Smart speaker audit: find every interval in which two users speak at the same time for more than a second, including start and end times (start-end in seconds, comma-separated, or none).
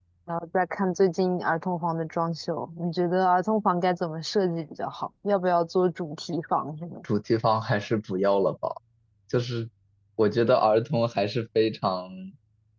none